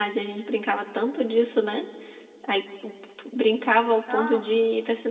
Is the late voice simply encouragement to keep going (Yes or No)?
Yes